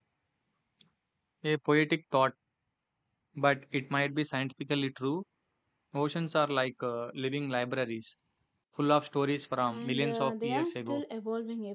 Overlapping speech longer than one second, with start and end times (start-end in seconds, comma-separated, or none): 9.7-11.0